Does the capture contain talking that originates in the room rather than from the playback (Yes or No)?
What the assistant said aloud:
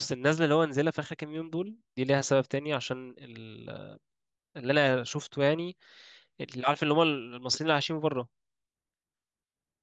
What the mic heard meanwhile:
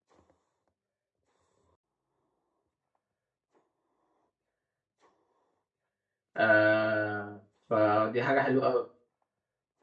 Yes